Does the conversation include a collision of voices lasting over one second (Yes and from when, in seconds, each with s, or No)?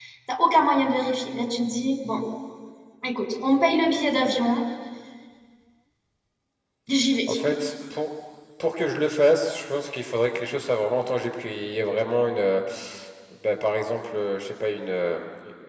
No